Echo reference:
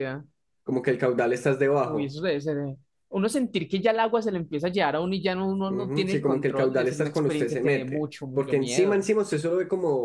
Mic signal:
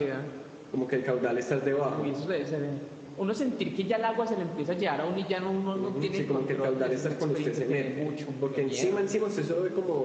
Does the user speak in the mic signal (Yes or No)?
No